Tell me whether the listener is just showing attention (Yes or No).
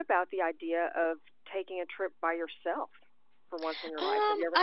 No